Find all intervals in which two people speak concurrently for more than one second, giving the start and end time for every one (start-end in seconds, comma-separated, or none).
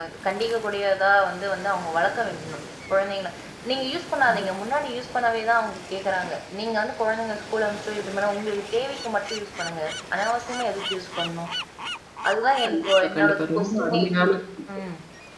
12.6-14.0